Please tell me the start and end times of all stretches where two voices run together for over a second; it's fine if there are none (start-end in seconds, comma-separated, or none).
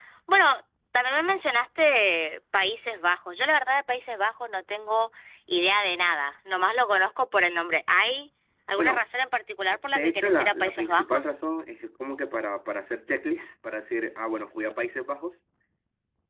9.8-11.3